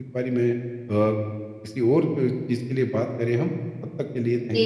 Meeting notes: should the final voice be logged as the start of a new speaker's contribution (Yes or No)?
Yes